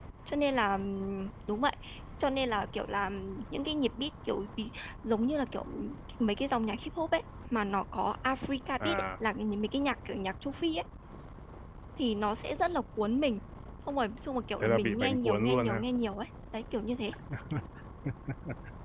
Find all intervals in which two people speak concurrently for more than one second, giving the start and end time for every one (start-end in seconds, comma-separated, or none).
14.6-15.8